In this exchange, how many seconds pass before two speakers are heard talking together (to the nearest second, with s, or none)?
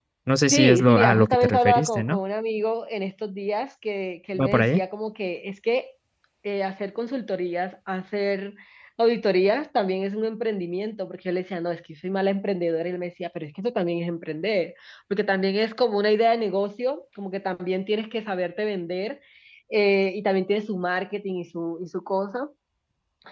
1 s